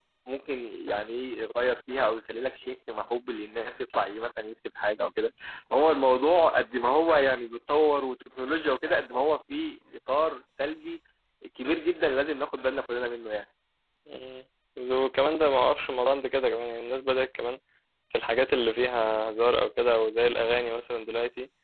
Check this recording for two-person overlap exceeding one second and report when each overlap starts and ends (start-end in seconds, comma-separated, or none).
none